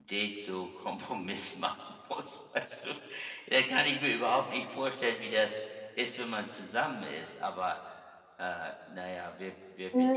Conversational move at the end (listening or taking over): taking over